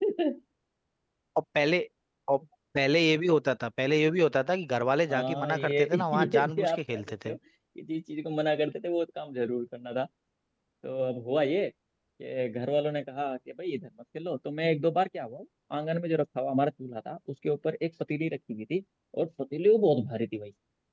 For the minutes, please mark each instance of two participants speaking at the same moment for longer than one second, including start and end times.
5.1-7.4

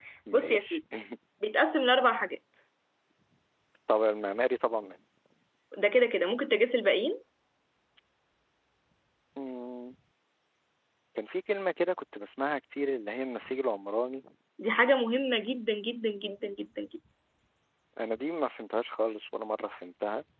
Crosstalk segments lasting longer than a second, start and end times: none

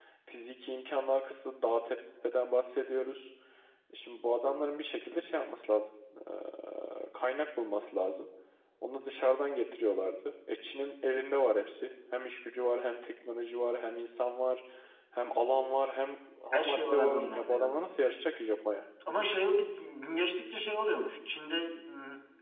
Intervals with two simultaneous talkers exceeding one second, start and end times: 16.5-17.8

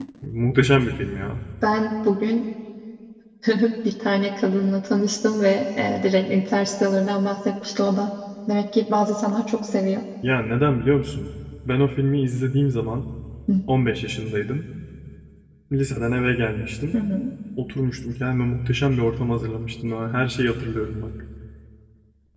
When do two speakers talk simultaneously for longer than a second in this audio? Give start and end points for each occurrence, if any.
none

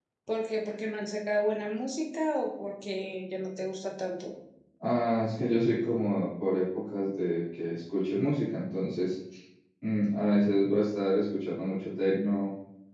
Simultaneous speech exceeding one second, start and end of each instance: none

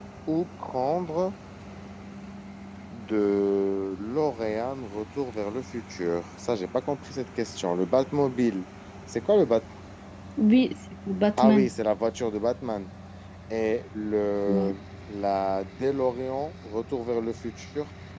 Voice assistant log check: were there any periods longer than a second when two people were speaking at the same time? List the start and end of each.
none

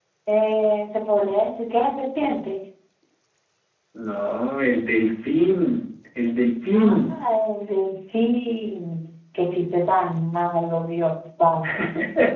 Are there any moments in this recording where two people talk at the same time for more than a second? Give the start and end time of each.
none

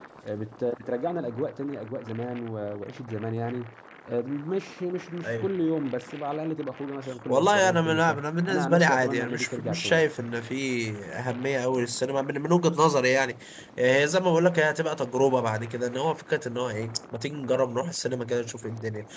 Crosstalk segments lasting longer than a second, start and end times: 7.3-10.0

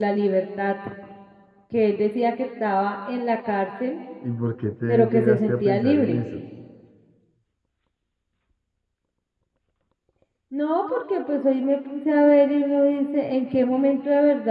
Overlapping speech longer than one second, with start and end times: 4.9-6.2

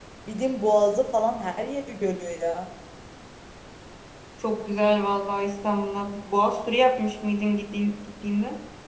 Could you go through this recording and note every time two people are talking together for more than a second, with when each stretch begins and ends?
none

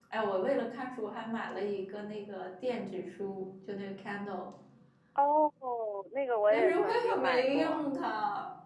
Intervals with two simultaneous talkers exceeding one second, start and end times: 6.5-7.9

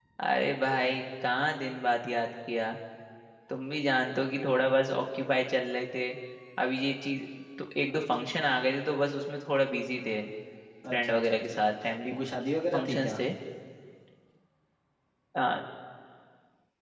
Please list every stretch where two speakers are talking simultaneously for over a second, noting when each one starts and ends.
10.9-12.1

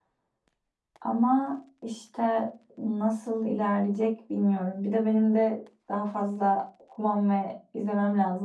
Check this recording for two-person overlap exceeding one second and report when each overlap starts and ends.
none

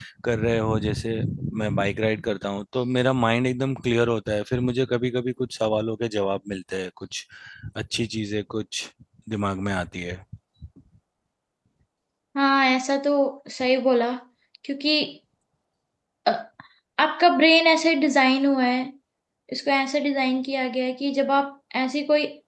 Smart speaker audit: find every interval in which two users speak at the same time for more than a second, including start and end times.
none

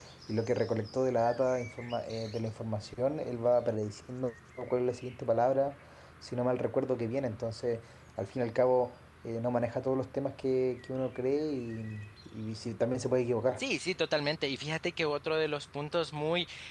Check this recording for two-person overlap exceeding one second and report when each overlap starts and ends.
none

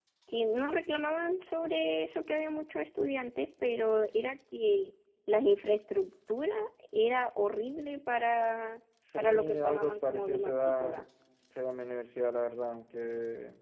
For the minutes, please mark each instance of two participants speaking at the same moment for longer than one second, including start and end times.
9.2-11.0

